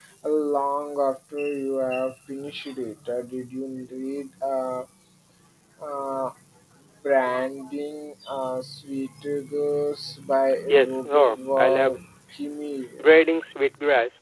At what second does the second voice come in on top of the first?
10.7 s

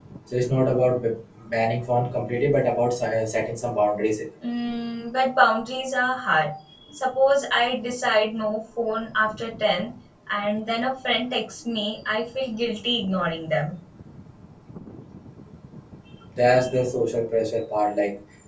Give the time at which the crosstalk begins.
none

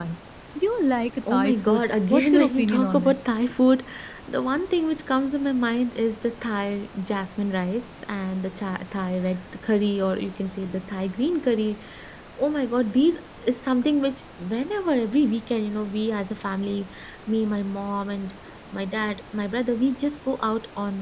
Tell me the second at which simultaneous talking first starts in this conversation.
1.3 s

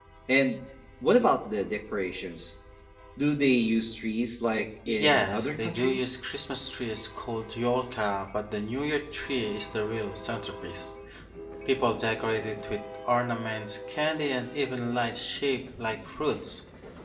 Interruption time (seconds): 4.9 s

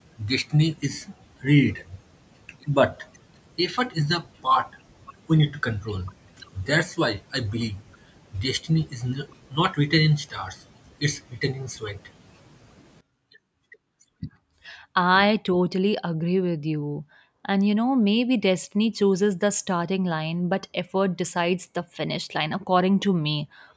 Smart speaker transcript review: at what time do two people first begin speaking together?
none

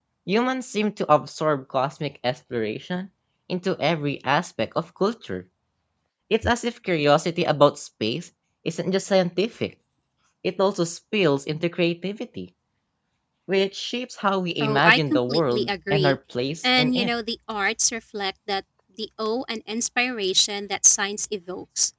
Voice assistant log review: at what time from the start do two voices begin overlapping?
14.6 s

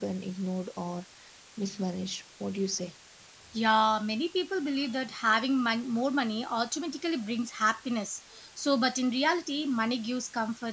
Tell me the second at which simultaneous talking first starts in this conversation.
none

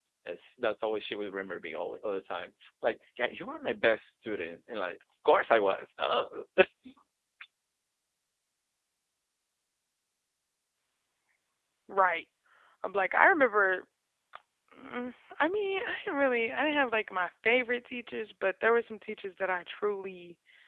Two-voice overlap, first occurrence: none

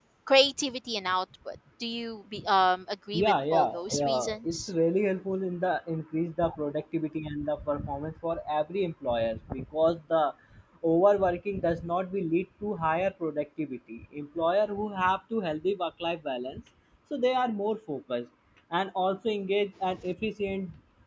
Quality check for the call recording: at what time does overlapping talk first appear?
3.1 s

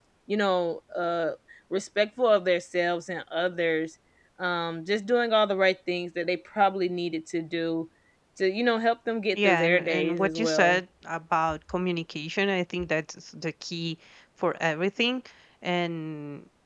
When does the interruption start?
9.3 s

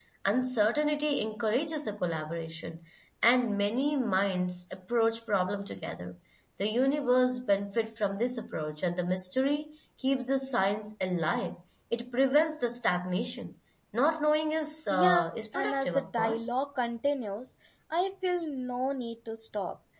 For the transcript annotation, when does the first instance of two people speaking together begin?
14.9 s

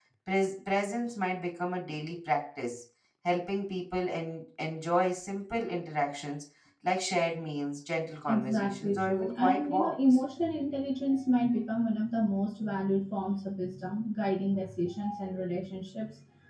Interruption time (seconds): 8.3 s

